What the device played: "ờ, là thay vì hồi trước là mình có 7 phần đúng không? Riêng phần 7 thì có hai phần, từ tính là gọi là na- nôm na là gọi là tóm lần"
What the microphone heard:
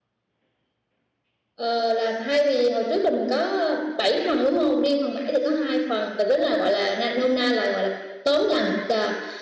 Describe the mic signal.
echo only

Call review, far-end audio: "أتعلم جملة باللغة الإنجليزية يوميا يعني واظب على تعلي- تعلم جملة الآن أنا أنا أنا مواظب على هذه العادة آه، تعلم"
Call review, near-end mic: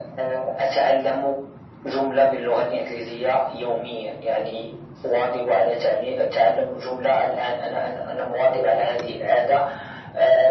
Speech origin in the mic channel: echo only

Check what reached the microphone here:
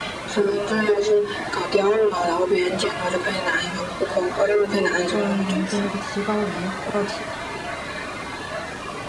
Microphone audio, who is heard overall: both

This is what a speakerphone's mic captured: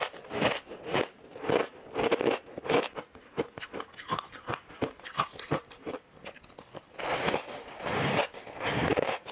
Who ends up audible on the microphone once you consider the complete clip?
neither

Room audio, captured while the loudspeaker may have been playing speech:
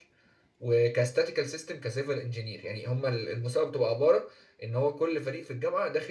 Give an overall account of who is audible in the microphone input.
user only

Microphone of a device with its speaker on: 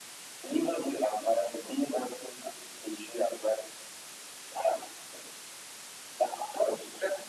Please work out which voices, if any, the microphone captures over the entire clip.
echo only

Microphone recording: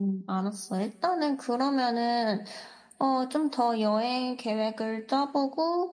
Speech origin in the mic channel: echo only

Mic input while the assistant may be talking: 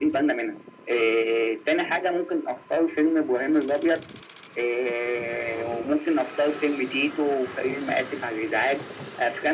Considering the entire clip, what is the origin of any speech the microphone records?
echo only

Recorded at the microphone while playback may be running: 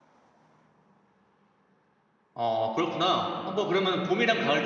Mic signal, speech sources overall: user only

